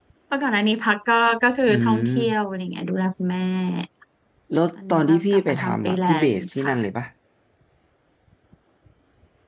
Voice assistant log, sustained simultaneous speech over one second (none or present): present